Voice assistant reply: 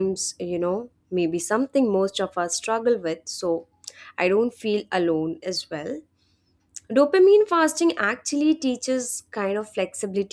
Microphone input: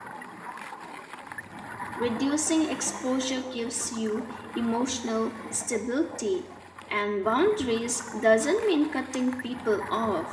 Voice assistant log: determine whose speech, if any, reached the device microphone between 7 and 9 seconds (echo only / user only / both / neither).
user only